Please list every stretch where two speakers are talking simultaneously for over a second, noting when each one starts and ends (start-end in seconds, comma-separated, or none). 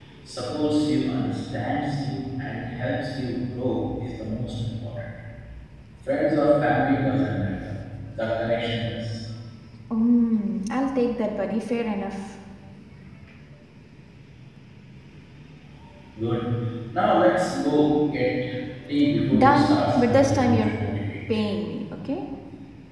19.4-20.7